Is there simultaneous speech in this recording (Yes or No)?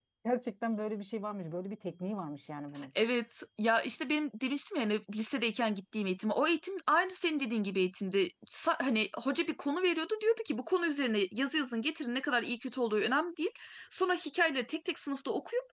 No